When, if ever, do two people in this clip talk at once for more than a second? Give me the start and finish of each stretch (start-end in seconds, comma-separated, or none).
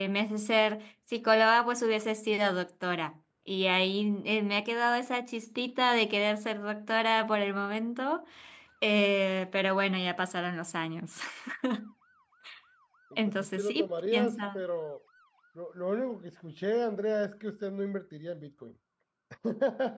13.3-14.6